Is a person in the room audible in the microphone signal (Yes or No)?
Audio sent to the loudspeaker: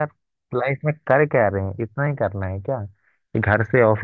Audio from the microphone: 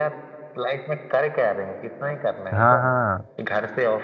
Yes